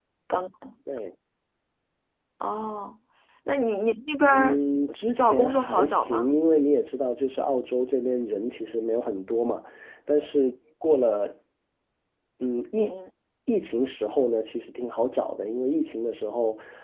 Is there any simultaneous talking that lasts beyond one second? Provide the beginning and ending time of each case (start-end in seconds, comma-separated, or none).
5.2-6.4